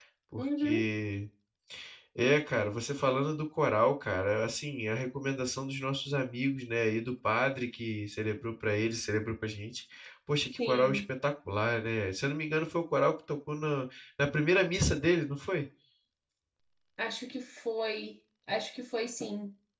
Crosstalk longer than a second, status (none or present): none